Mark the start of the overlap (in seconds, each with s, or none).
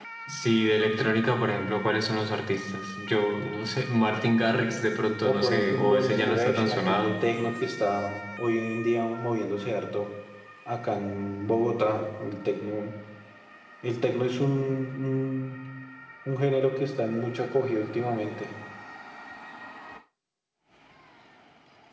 5.2 s